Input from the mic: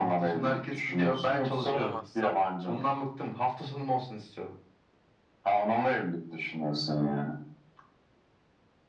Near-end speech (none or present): present